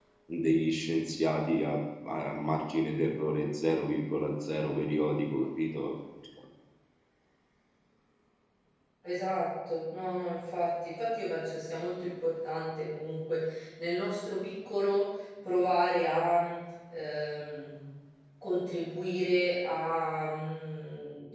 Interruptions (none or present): none